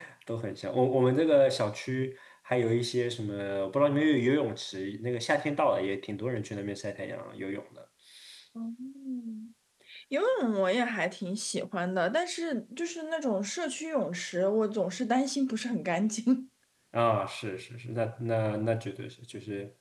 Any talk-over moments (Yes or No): No